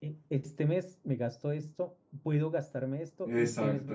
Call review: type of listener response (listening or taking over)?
listening